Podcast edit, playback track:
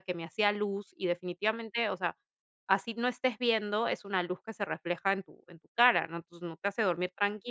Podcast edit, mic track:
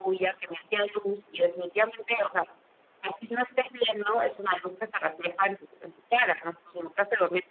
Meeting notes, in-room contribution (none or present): none